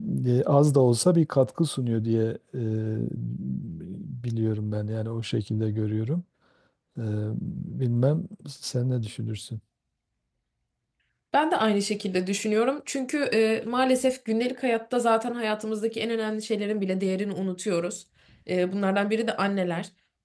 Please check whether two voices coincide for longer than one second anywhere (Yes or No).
No